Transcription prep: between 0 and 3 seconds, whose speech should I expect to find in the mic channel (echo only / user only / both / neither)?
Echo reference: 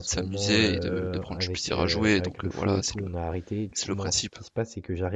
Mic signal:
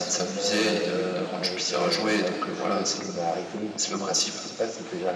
echo only